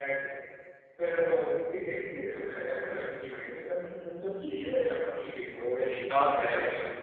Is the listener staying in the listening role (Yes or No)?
No